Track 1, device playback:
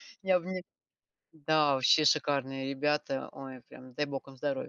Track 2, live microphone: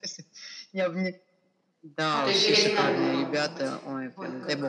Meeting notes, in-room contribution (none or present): present